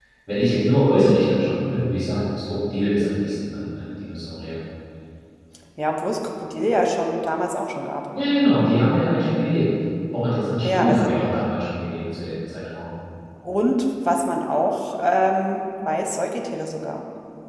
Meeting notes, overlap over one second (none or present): none